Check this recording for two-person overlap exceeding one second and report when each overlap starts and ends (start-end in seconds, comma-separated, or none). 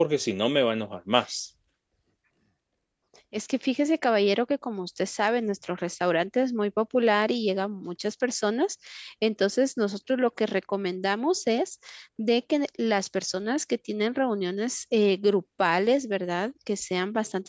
none